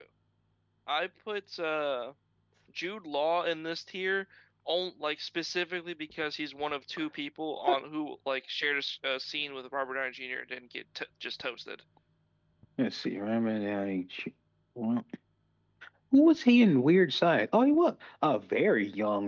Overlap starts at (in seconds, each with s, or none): none